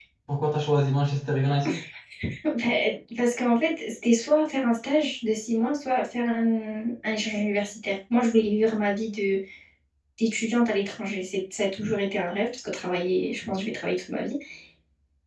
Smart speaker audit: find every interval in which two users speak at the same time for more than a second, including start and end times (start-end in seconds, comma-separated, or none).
none